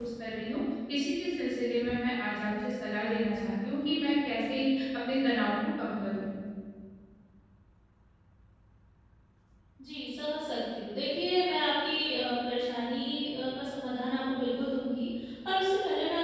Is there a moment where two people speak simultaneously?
No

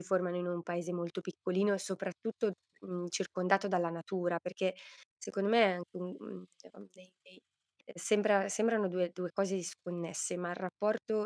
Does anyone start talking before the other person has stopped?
No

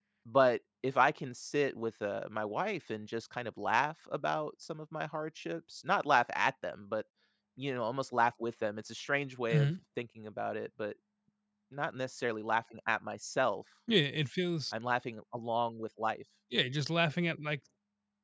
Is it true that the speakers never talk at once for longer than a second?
Yes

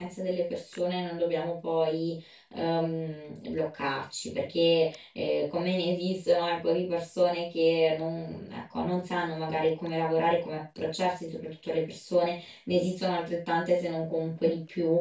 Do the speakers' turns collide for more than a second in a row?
No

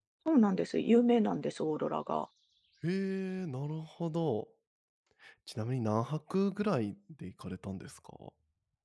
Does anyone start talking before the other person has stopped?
No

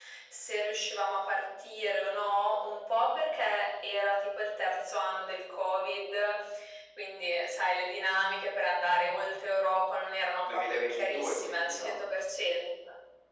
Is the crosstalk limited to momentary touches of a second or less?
No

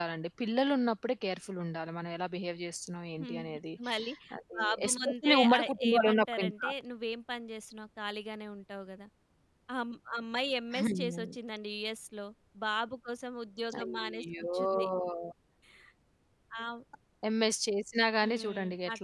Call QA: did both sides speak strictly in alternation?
No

